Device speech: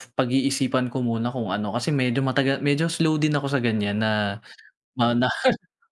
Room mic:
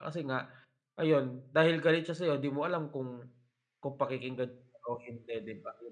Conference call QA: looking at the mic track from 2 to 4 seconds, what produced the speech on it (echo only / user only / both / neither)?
user only